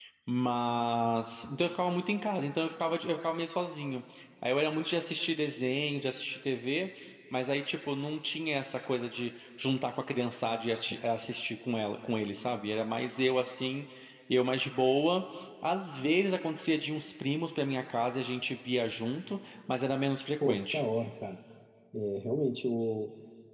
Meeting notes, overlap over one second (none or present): none